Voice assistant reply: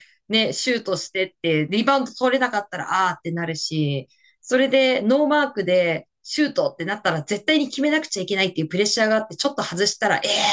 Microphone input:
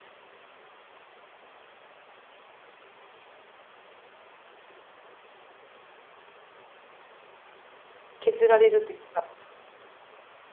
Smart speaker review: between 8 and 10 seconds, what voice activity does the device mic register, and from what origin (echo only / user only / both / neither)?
user only